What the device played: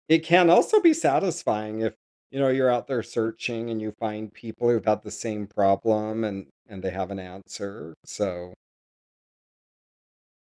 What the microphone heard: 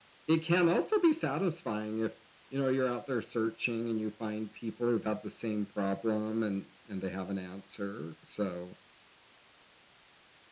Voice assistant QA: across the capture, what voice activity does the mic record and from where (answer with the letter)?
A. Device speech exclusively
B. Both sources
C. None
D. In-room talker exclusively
A